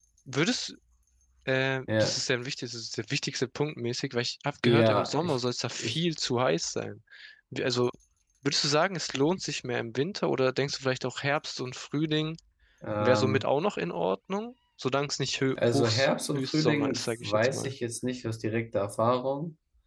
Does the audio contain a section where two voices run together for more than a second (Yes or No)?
Yes